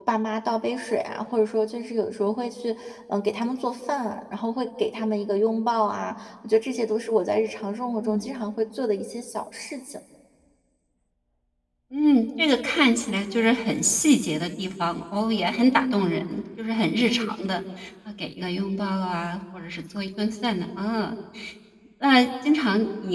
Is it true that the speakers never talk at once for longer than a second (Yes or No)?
Yes